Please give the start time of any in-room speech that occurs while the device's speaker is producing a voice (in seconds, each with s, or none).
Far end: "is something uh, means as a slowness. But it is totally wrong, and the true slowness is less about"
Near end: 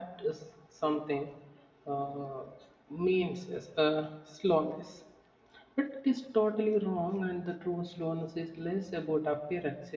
none